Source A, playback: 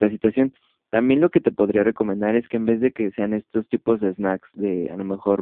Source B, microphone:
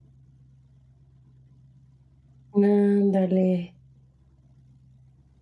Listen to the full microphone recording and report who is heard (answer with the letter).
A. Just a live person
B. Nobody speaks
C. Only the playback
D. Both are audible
A